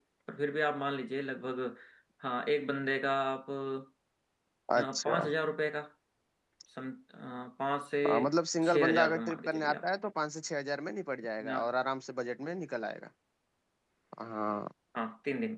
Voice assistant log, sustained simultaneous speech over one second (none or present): present